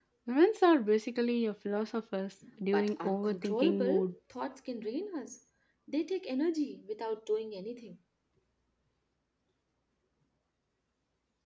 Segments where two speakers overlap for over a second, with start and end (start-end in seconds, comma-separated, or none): 2.7-4.1